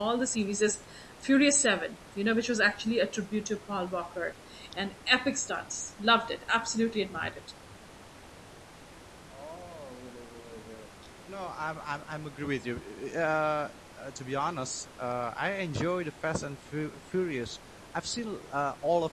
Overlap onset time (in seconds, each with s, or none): none